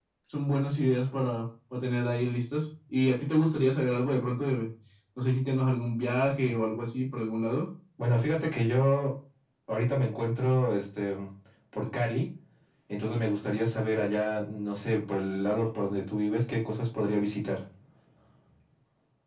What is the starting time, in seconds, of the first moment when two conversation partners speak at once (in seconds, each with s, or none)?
none